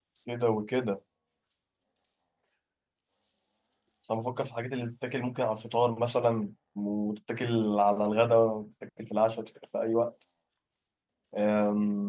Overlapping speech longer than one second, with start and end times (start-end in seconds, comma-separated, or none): none